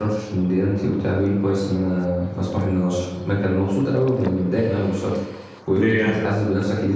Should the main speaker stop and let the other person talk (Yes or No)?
No